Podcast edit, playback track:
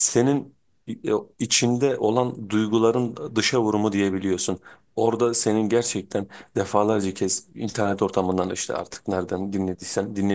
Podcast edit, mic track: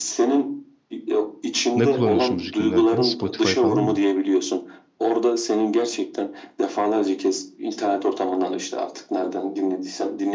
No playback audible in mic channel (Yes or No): No